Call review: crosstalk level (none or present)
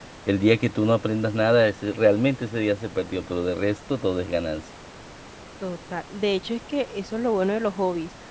none